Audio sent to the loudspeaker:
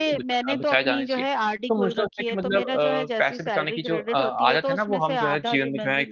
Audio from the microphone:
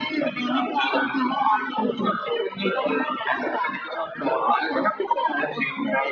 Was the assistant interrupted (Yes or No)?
No